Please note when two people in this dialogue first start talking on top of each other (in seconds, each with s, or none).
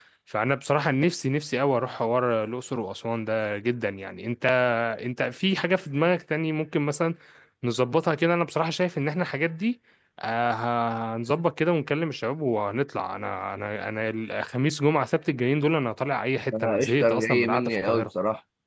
16.5 s